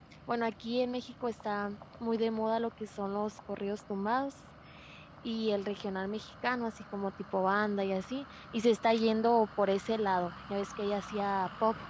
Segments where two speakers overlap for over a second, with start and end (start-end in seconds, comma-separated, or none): none